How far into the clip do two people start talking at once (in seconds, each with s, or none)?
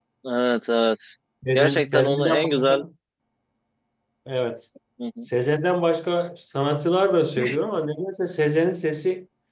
1.6 s